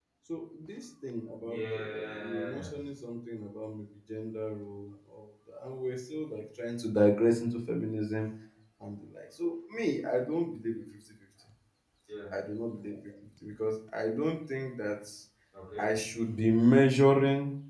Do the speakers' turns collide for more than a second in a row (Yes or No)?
Yes